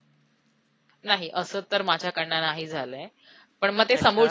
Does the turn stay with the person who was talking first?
Yes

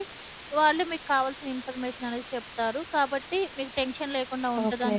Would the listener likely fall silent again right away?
Yes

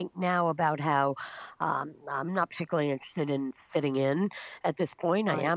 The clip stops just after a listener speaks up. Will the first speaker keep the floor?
Yes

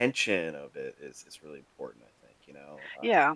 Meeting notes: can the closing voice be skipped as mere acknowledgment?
No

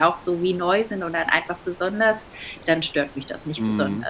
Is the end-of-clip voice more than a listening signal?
Yes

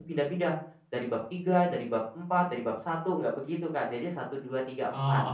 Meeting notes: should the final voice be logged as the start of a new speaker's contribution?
Yes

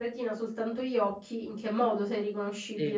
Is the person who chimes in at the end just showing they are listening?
No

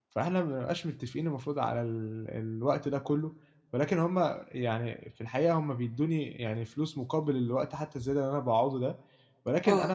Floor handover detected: No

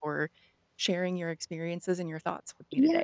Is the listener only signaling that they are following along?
No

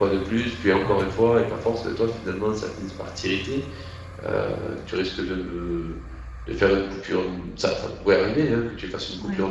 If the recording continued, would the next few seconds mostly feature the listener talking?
No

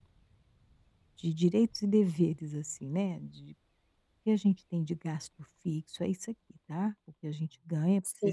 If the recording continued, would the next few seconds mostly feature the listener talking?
No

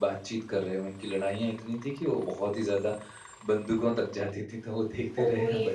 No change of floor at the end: No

